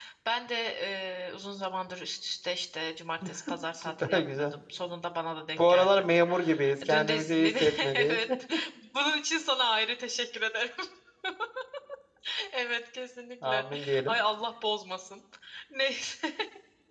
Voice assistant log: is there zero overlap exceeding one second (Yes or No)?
No